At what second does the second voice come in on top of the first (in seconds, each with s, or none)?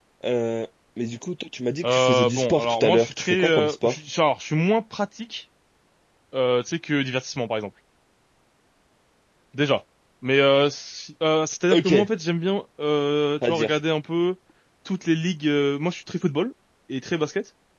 1.8 s